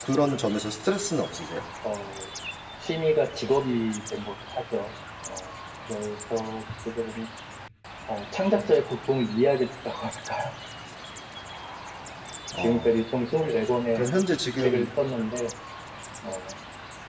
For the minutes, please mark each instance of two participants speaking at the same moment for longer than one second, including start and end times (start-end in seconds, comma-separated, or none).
none